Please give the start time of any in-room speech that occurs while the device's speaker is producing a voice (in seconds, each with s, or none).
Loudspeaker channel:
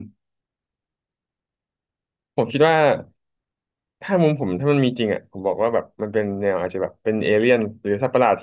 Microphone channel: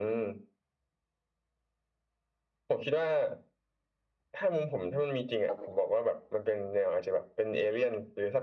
5.5 s